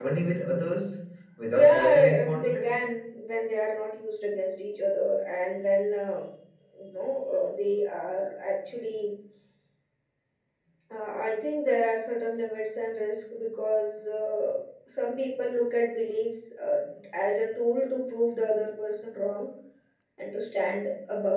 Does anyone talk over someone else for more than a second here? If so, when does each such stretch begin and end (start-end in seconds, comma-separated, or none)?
1.5-2.8